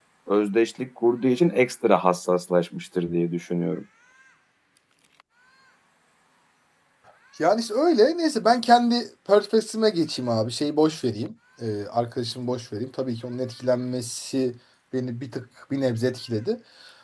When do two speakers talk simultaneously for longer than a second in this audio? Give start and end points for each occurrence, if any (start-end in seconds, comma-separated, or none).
none